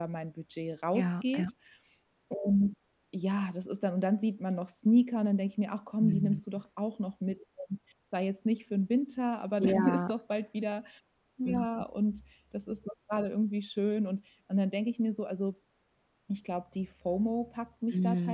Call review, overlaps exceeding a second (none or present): none